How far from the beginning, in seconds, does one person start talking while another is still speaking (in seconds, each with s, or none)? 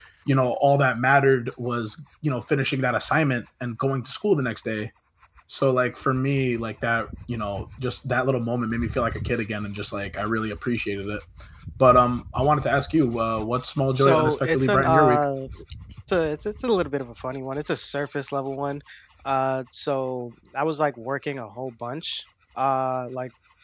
14.0 s